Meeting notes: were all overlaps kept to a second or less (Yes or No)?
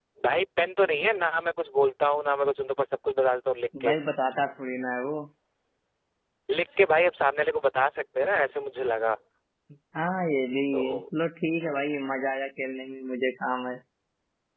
Yes